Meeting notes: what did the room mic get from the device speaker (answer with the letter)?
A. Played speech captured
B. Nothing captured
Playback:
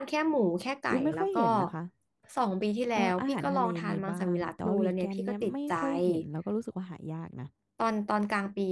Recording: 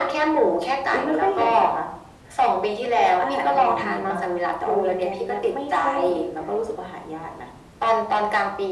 A